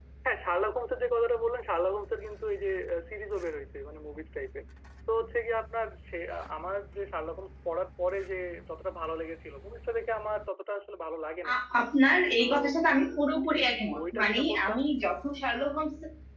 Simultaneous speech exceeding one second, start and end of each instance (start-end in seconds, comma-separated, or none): 13.5-14.8